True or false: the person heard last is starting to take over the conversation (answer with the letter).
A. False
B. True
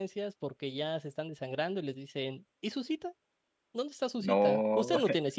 A